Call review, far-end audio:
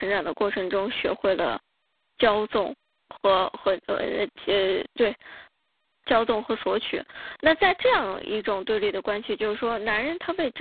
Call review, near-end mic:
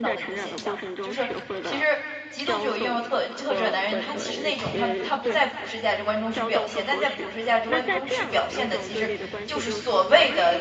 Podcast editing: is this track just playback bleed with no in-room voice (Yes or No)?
No